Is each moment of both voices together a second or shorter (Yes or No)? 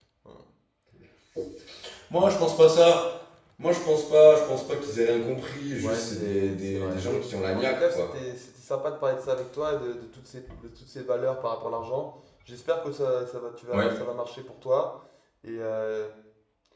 No